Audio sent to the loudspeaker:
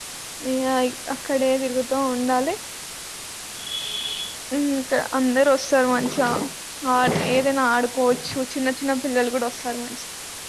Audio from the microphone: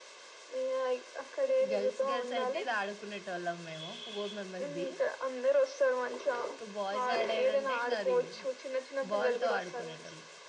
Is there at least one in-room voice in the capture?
Yes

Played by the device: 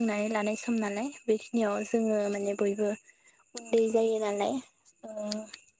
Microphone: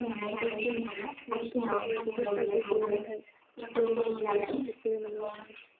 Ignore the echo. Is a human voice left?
Yes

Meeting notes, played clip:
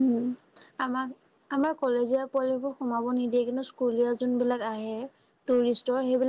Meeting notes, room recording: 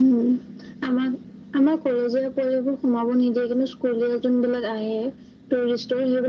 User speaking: No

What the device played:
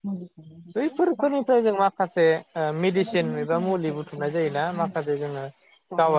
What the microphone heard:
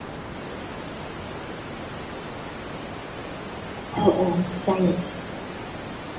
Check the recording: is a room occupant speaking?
Yes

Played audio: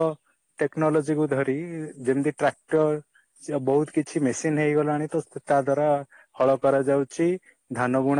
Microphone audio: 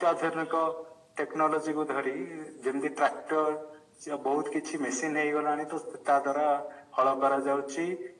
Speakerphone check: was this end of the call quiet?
Yes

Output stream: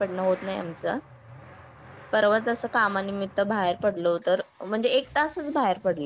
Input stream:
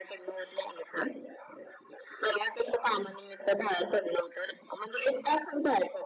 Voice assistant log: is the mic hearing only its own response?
Yes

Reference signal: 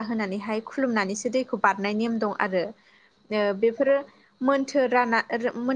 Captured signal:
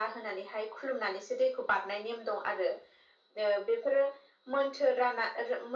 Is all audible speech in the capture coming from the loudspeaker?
Yes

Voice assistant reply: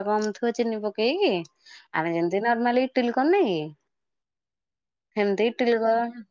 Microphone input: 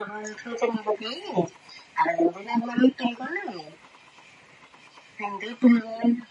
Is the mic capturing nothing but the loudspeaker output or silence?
Yes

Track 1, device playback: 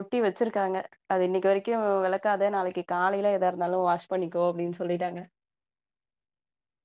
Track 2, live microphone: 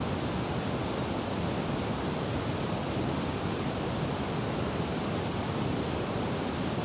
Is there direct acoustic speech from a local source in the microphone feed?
No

